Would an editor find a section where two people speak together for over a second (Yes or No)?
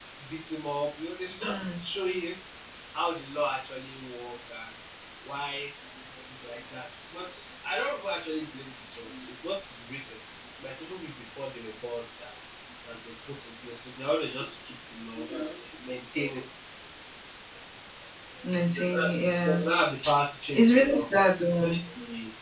No